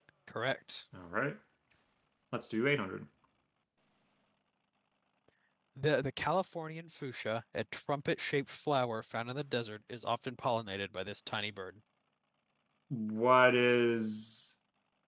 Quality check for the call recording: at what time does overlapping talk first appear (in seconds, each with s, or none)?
none